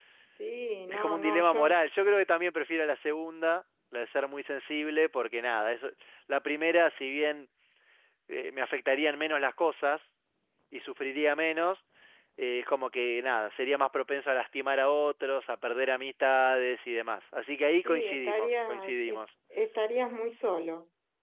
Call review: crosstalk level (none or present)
present